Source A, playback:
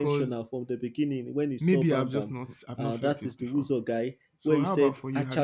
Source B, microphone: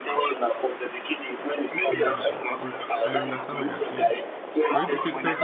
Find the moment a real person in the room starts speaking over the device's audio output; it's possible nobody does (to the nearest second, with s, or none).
2 s